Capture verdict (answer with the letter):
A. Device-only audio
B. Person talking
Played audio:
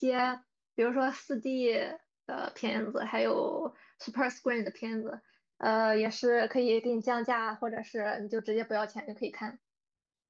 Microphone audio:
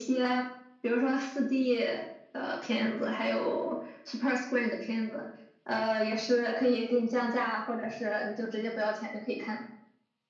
A